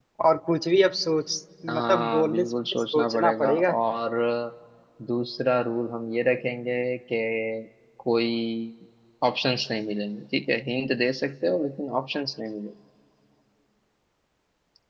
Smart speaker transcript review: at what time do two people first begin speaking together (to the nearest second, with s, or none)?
2 s